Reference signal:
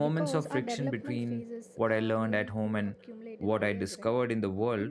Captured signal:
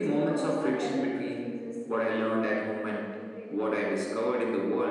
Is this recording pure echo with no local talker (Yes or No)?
Yes